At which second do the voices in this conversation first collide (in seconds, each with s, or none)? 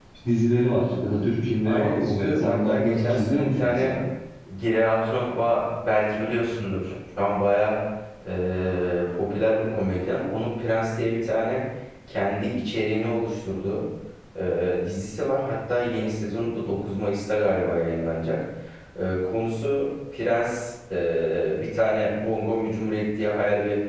1.6 s